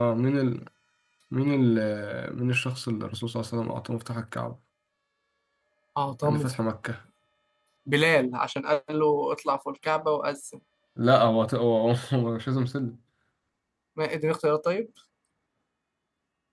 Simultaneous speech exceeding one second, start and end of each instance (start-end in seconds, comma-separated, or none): none